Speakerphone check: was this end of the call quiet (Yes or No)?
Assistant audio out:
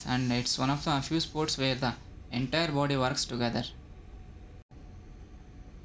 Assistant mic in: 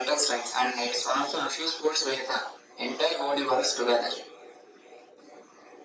Yes